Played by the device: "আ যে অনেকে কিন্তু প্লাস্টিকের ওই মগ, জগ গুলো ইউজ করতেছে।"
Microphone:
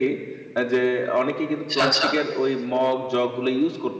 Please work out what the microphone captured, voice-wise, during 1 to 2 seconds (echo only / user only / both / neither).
both